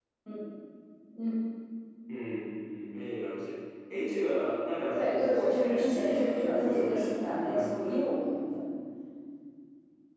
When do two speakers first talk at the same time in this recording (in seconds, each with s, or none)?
4.9 s